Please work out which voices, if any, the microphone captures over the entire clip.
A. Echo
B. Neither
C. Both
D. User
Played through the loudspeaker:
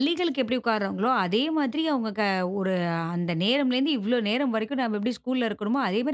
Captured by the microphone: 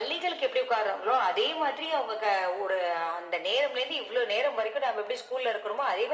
A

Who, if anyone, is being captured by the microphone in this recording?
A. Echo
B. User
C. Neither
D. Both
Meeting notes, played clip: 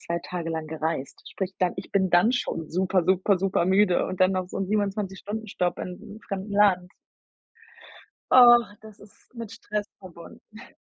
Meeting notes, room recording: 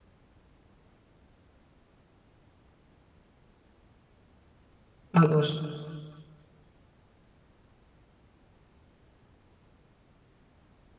B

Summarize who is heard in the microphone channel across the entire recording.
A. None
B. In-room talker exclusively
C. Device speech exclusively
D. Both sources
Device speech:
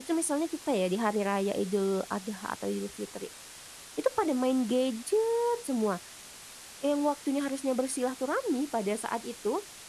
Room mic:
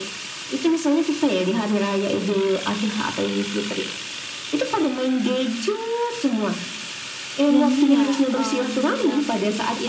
D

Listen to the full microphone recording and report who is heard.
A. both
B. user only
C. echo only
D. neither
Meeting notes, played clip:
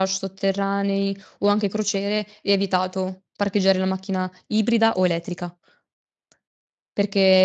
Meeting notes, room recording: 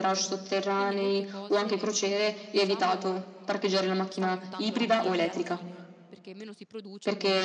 A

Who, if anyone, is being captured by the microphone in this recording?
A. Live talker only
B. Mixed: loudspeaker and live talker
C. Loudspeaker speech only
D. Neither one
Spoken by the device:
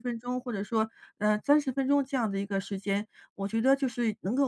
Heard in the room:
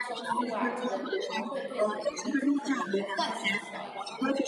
B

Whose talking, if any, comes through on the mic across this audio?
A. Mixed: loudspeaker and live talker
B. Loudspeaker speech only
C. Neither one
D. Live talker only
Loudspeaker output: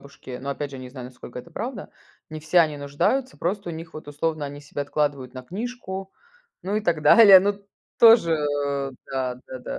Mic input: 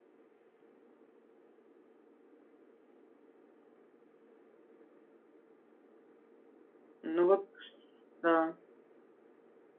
D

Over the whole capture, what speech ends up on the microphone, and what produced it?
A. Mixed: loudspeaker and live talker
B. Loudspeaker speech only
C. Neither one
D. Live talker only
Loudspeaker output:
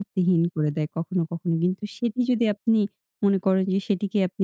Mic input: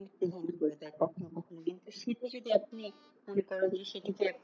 B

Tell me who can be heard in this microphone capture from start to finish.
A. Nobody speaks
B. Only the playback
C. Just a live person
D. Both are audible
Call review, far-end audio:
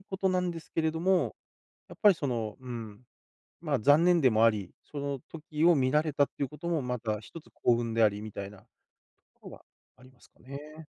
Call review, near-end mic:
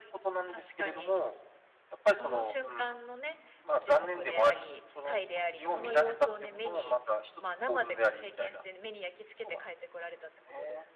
D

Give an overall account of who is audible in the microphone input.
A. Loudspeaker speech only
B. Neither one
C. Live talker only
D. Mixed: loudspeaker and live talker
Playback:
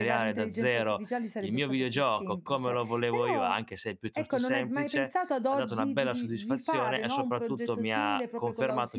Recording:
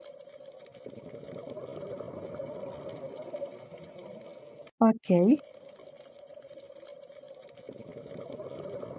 C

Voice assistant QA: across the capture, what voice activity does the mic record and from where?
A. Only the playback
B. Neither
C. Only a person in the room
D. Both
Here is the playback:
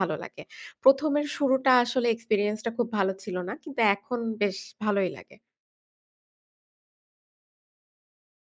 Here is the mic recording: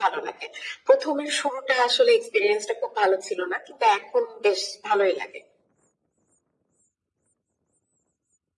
A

